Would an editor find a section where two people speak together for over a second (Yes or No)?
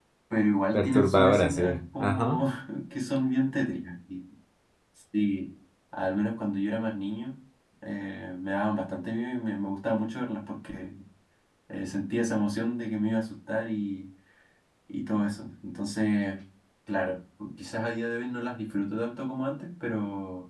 Yes